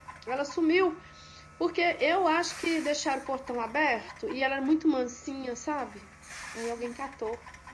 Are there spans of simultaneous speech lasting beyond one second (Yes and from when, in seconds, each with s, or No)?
No